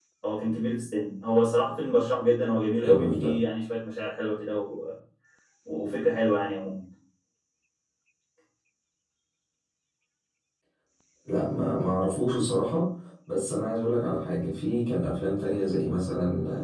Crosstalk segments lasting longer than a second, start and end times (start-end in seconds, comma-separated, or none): none